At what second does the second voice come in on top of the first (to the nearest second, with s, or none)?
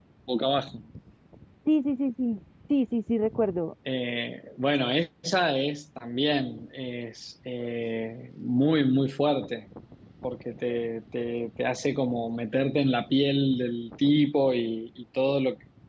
none